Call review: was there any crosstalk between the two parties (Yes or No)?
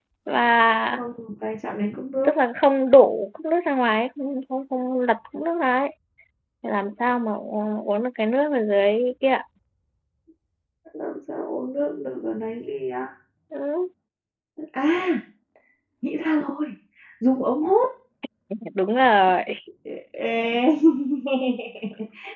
No